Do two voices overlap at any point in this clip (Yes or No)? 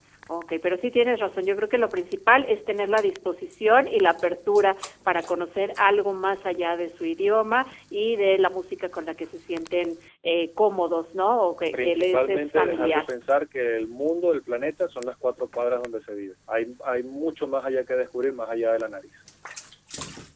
Yes